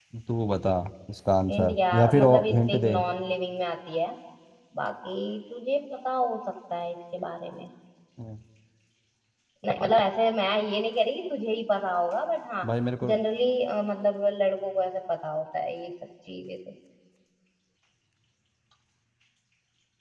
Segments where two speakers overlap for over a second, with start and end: 1.5-3.0

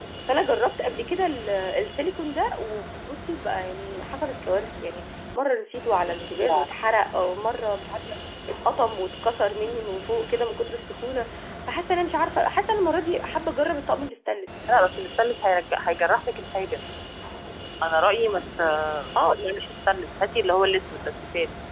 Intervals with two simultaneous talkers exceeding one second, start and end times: none

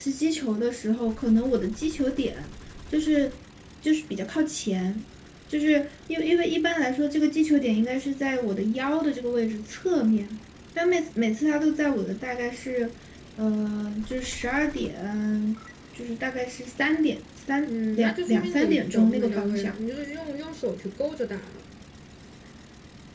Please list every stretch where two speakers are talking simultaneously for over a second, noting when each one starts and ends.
17.7-19.8

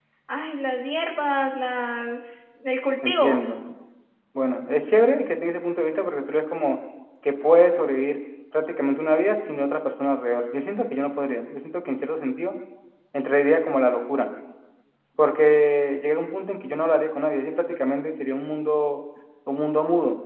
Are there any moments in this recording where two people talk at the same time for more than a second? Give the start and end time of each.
none

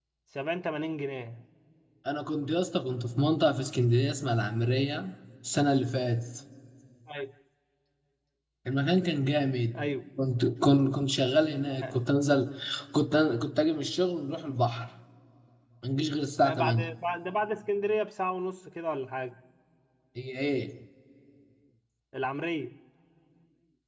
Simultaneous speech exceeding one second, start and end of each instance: none

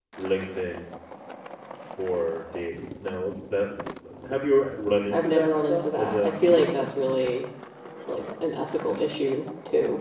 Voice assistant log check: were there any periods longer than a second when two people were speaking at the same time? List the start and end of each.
5.1-6.7

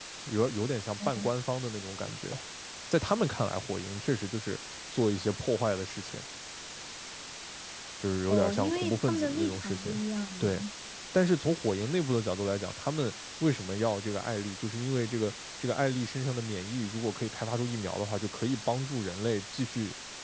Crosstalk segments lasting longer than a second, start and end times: 8.3-9.9

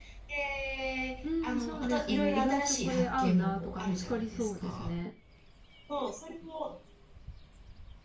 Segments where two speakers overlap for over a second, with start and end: 1.4-4.9

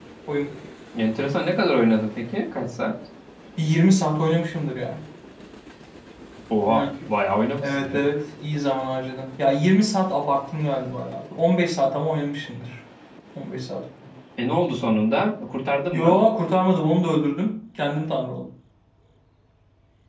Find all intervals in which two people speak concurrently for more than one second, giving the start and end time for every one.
none

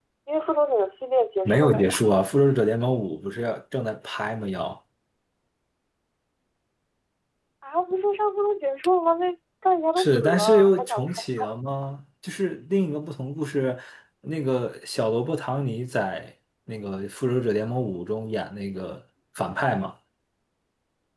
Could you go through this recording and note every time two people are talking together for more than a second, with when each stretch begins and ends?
10.0-11.2

